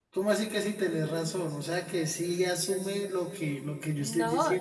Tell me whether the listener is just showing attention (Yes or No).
No